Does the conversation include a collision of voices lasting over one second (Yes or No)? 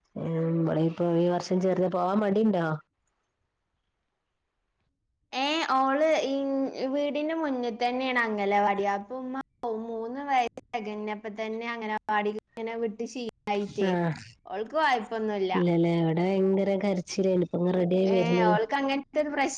No